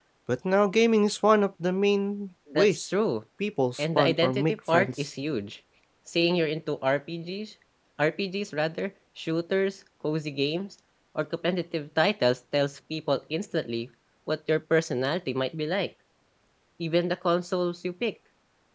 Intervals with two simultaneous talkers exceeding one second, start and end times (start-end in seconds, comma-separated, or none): 3.8-5.1